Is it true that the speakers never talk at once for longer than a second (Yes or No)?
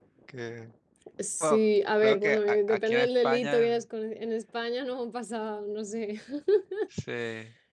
No